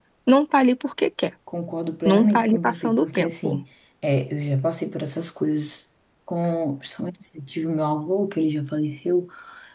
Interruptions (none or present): present